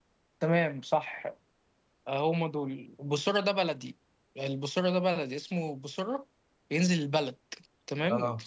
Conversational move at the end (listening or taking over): listening